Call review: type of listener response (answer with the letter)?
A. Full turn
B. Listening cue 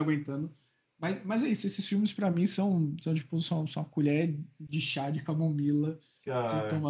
B